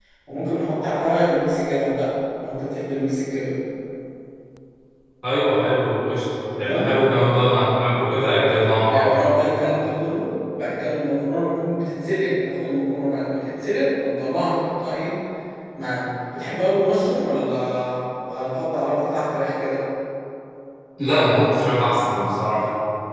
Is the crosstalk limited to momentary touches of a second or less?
Yes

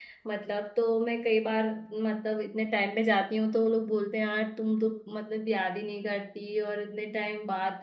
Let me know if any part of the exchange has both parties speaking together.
No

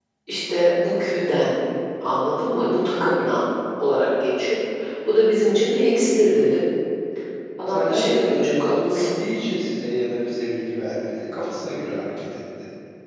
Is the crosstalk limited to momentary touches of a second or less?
No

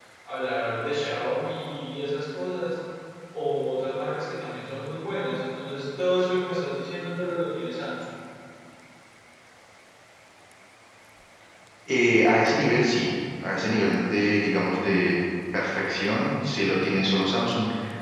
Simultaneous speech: No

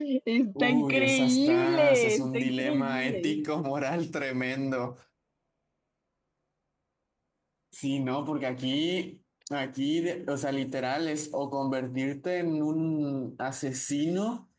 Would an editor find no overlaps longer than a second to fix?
No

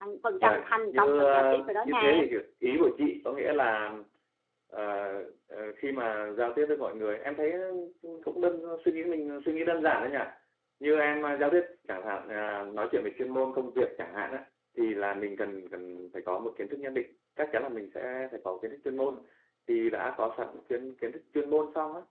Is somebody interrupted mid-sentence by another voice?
Yes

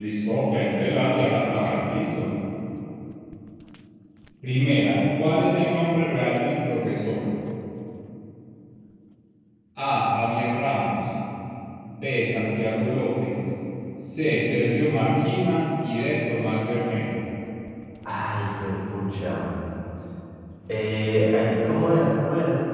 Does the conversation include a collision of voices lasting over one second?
No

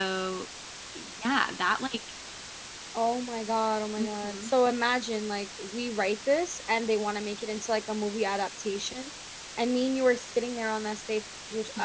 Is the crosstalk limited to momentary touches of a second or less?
Yes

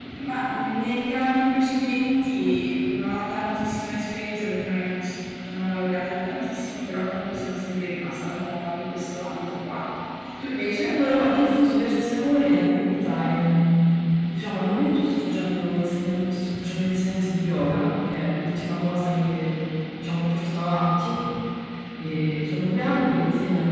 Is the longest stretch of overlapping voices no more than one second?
Yes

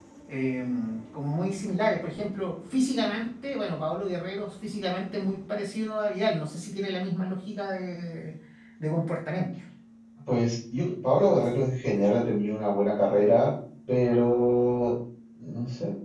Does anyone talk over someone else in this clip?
No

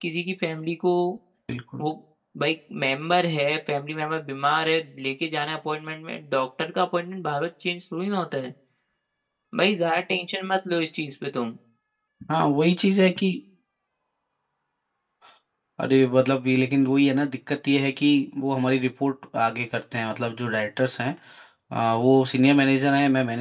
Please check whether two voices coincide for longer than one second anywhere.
No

